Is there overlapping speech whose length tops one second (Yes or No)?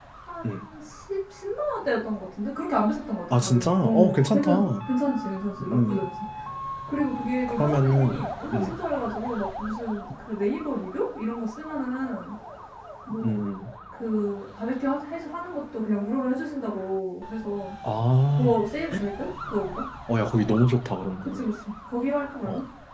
Yes